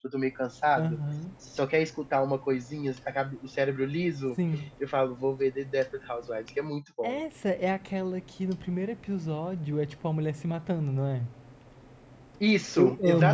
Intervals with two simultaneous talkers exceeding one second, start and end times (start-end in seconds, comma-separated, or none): none